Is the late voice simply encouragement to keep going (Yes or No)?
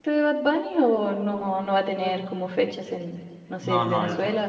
No